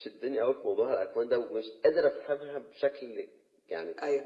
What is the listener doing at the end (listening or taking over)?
listening